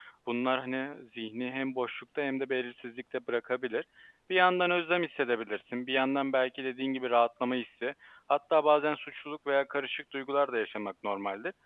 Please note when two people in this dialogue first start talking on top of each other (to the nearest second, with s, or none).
none